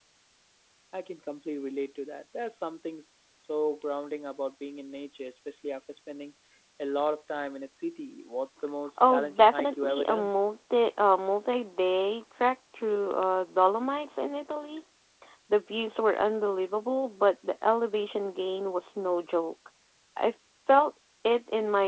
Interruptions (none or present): present